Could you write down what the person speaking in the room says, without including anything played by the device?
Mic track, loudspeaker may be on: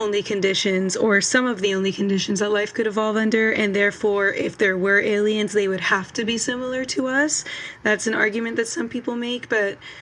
none

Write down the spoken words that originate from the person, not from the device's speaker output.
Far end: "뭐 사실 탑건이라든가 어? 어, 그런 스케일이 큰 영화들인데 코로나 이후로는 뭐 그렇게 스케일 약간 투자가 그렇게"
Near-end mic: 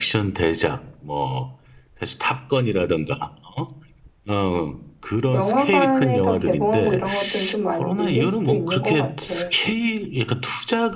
영화관에서 개봉하고 이런 것들은 좀 많이 밀릴 수도 있는 것 같아.

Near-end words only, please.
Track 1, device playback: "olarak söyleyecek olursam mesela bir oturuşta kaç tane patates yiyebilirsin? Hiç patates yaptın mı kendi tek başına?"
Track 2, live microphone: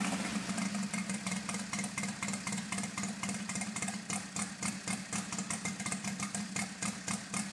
none

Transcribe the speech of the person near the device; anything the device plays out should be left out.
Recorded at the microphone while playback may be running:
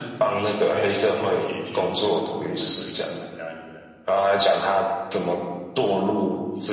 none

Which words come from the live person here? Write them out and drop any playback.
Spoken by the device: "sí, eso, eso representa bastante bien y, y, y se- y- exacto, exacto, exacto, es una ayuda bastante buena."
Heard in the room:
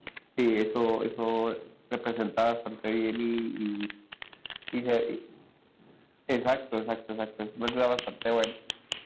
none

